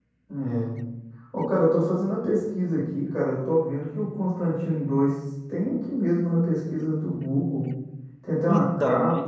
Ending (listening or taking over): listening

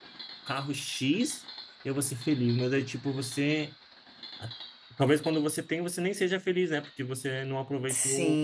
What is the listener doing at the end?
taking over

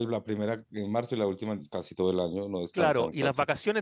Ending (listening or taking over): taking over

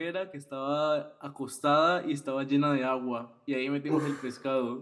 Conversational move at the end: listening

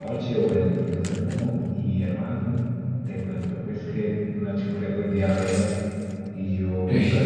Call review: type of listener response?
listening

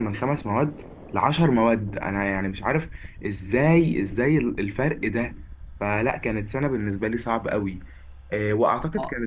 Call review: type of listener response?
listening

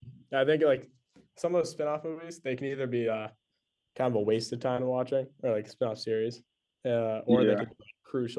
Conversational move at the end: listening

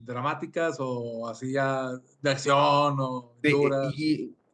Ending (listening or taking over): taking over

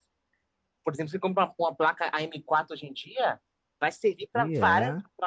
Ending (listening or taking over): listening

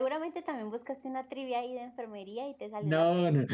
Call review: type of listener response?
taking over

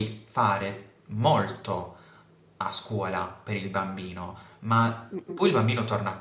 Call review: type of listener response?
listening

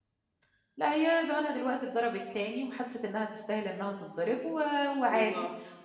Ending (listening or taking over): listening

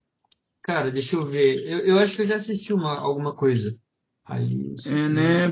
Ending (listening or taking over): taking over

